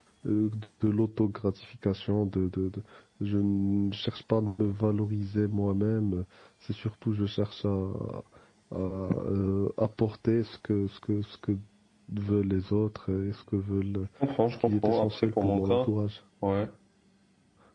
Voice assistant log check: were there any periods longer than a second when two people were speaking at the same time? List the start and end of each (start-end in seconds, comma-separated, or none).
14.7-15.9